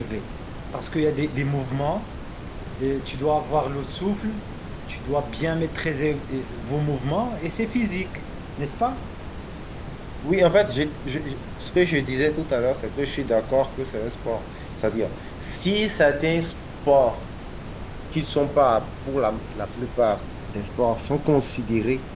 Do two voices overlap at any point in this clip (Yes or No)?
No